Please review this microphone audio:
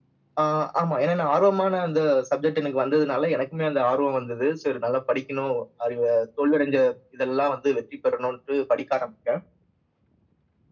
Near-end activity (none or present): none